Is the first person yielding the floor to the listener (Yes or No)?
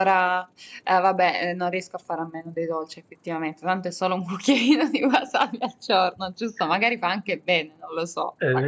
Yes